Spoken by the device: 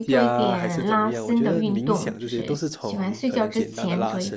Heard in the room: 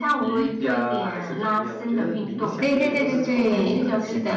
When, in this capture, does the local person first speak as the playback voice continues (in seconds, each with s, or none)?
2.6 s